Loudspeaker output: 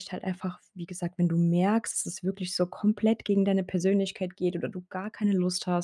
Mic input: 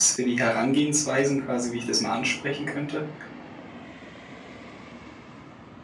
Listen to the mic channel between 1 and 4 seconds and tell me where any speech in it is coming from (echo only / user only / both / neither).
user only